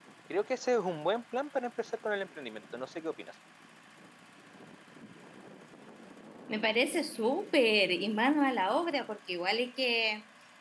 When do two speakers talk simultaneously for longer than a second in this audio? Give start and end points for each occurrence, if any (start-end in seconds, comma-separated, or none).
none